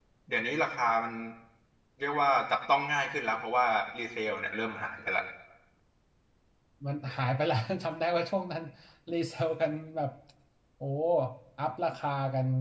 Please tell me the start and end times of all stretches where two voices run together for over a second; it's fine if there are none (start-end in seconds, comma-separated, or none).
none